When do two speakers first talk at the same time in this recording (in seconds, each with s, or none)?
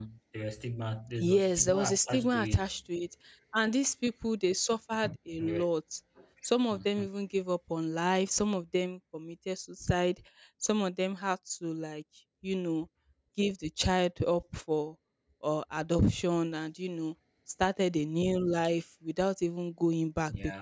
1.2 s